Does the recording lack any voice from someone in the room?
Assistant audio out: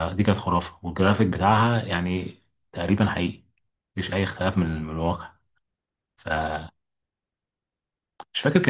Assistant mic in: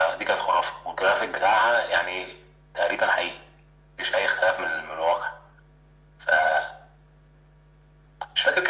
Yes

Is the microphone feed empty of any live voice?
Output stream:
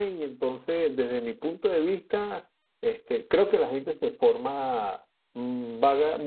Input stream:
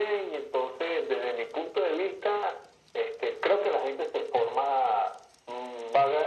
Yes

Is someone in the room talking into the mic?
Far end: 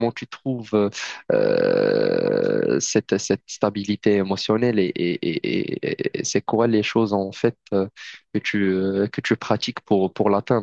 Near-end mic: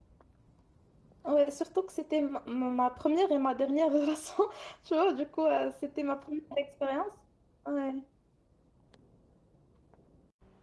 Yes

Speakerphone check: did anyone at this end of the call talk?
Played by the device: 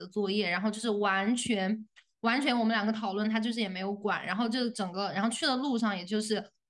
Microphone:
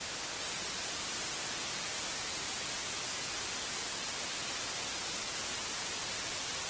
No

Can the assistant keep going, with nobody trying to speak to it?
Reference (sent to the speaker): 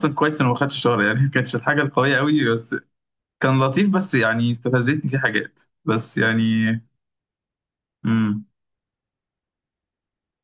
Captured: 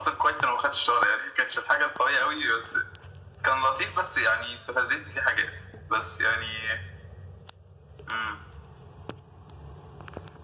Yes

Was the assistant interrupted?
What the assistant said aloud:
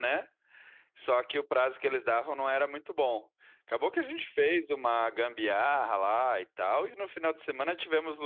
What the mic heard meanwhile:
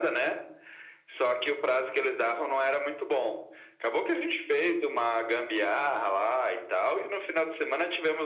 No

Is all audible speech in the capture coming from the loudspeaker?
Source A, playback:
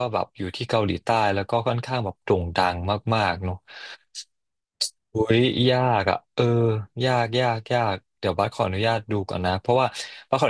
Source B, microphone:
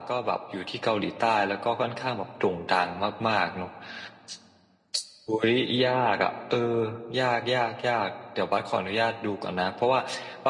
Yes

